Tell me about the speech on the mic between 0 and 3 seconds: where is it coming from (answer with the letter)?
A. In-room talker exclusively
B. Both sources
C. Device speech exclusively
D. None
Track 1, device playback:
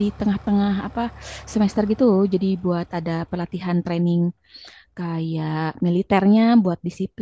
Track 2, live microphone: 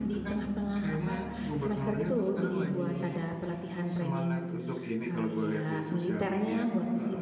B